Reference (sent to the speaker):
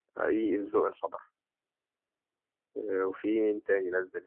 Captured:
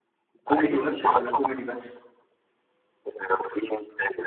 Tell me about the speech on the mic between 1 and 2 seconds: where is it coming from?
both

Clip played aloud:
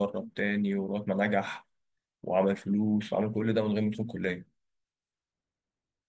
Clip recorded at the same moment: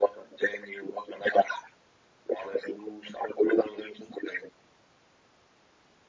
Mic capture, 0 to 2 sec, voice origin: echo only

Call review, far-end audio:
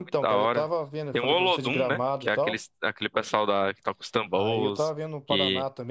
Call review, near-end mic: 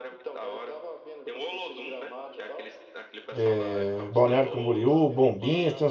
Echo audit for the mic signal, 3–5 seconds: both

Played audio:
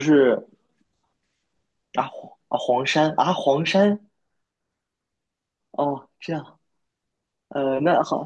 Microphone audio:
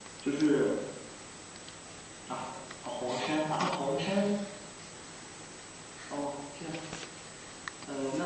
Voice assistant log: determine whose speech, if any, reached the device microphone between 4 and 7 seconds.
echo only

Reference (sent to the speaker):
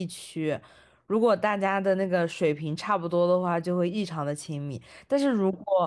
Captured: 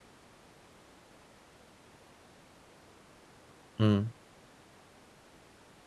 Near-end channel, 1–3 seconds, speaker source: neither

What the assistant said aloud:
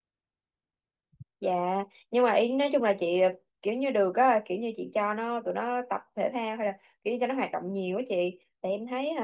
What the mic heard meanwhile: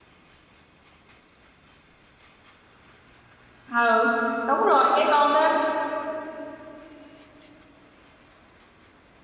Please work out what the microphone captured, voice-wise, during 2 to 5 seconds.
user only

